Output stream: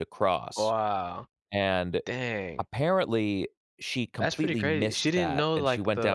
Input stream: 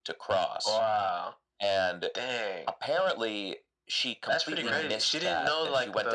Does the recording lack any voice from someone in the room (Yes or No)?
No